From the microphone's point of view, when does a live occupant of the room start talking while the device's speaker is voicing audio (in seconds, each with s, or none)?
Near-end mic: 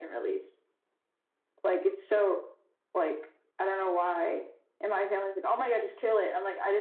none